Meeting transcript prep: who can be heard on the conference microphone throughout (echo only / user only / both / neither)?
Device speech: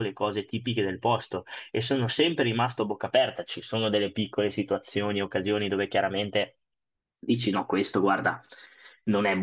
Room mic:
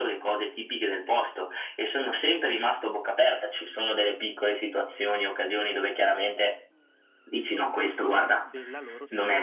both